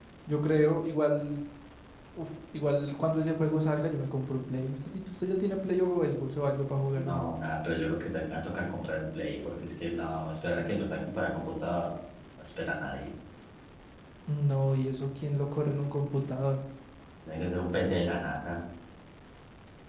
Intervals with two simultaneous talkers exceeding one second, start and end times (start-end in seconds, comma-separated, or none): none